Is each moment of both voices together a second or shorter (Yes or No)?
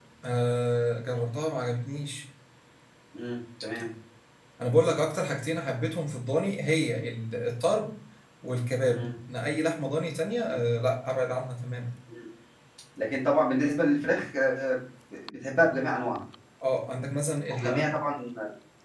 Yes